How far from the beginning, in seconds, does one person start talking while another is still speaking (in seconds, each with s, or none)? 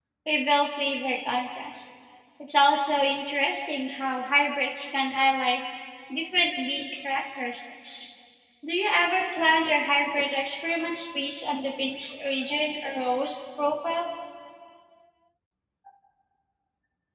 none